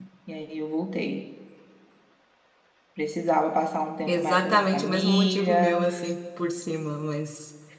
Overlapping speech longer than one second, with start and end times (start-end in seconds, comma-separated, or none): 4.1-5.8